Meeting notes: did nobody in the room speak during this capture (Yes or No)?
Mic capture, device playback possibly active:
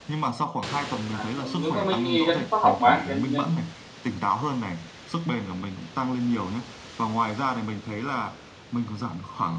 No